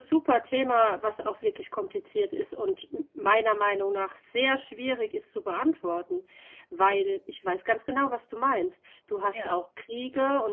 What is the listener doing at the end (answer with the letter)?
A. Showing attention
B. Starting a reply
A